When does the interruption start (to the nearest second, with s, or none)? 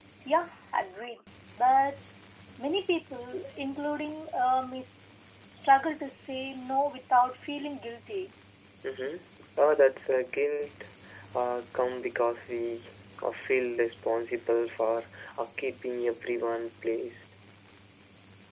none